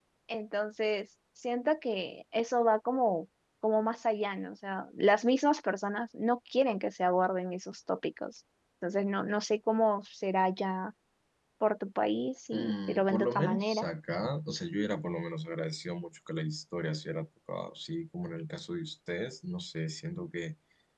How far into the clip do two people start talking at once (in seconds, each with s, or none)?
12.5 s